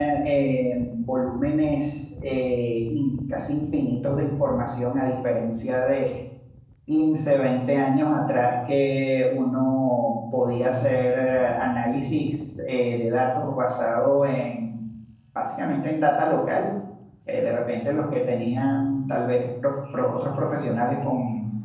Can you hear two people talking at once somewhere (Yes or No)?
No